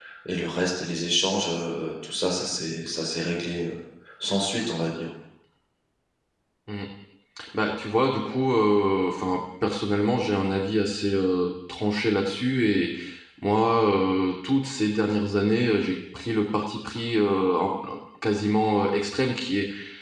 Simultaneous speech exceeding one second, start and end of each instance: none

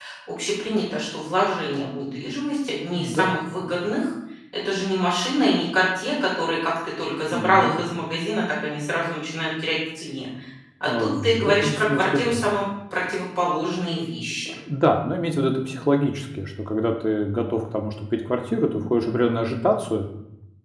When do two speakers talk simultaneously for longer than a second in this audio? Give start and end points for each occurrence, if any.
10.9-12.4

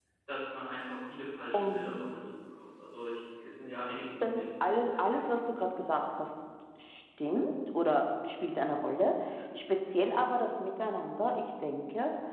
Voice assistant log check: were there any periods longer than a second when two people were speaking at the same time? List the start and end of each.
4.2-6.0

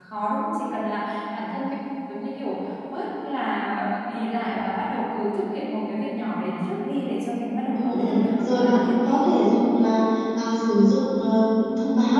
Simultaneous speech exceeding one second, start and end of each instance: 7.8-9.5

